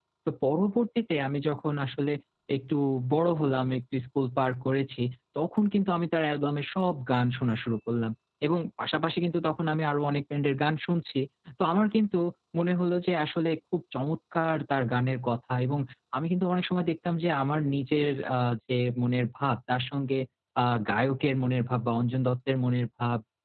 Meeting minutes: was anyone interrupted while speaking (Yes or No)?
No